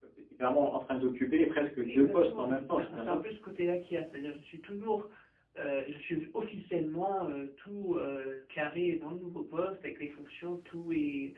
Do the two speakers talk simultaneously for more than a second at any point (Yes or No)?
Yes